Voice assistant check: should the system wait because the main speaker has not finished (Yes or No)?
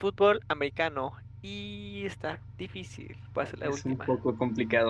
No